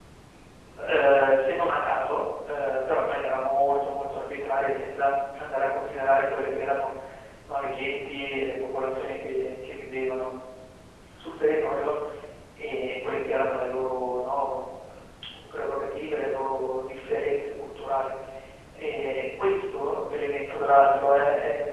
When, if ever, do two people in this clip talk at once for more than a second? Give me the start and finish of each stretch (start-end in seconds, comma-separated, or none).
none